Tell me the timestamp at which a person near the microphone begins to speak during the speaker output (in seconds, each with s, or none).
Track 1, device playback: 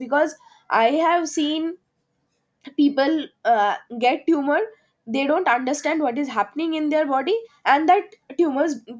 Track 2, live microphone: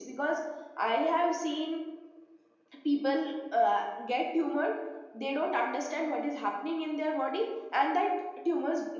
none